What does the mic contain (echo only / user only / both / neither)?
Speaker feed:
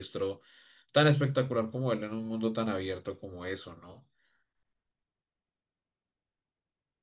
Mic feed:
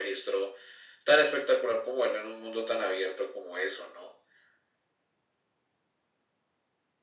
echo only